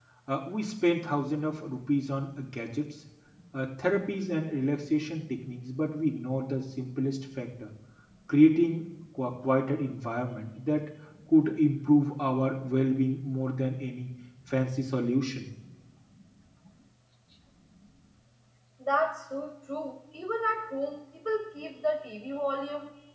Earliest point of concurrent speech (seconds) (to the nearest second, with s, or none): none